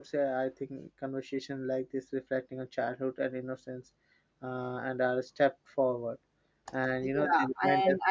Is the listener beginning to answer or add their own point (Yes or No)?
Yes